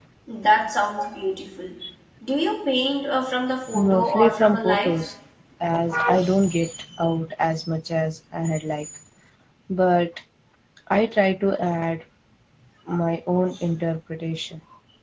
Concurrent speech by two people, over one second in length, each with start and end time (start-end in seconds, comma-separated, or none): 3.7-5.0